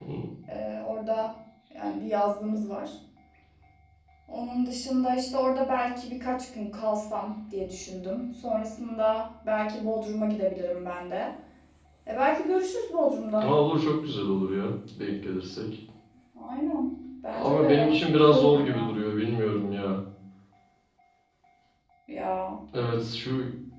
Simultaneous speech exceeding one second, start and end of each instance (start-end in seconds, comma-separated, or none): 17.3-19.0